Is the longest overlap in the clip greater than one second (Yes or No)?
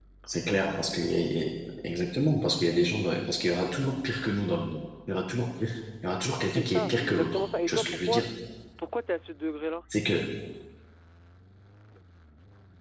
Yes